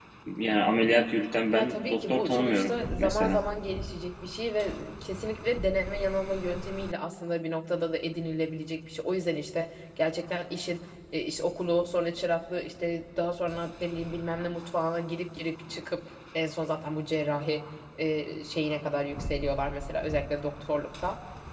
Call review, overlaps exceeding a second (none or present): present